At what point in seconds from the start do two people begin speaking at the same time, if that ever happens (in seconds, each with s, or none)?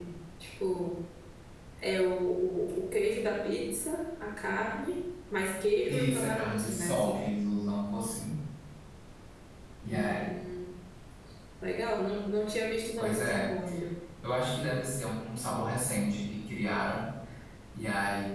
5.9 s